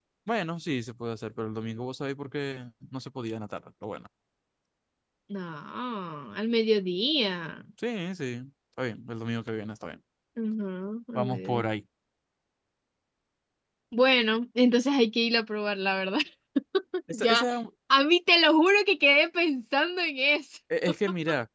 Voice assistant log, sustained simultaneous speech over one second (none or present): none